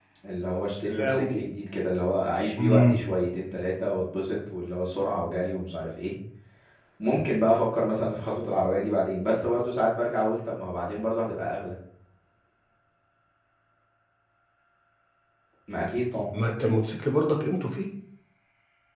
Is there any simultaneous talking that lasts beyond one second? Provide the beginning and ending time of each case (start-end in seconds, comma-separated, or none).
none